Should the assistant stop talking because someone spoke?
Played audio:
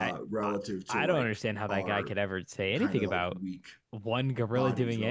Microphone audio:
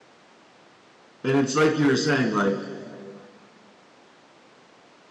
Yes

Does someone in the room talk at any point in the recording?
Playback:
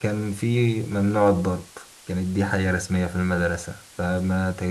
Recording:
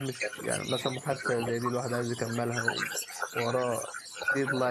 Yes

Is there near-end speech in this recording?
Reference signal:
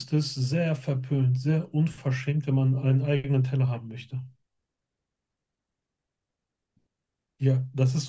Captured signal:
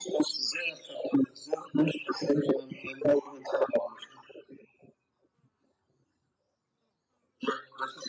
No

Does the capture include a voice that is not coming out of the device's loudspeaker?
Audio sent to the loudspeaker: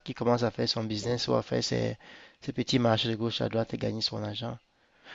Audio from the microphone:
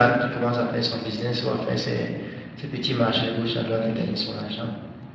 Yes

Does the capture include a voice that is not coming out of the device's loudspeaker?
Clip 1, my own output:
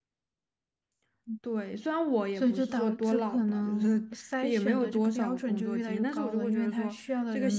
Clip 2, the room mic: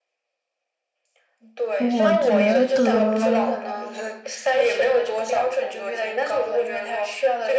Yes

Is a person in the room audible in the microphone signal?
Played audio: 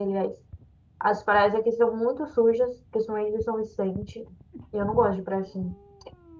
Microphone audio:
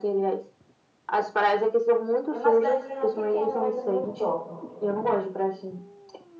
Yes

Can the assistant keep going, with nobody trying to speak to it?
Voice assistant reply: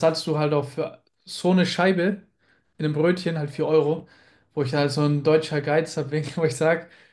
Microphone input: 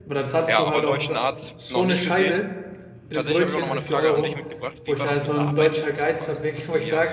No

